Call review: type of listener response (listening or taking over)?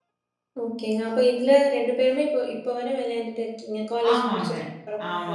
taking over